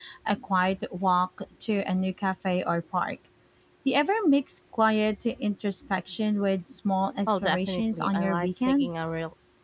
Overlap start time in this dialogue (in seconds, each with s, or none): 7.3 s